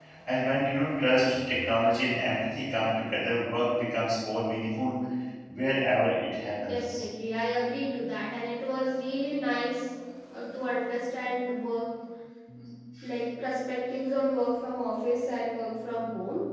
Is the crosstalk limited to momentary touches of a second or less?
Yes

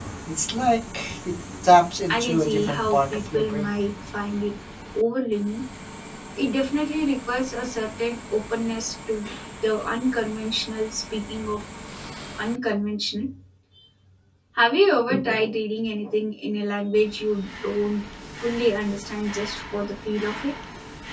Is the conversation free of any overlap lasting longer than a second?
No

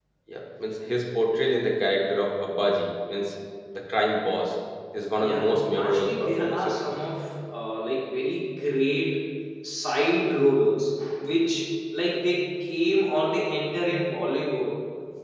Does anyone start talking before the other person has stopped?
Yes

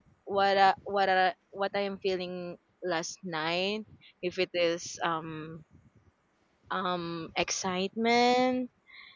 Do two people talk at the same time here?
No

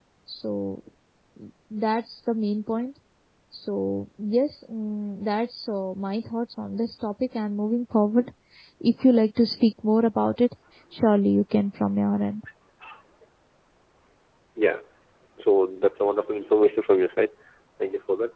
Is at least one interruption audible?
No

